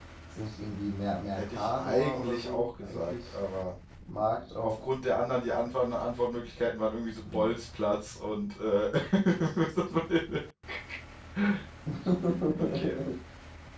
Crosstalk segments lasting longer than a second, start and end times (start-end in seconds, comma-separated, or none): 1.4-3.4